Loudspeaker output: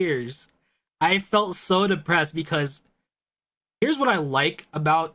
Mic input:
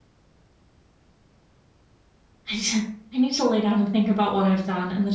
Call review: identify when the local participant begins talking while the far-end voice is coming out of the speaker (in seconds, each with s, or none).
2.5 s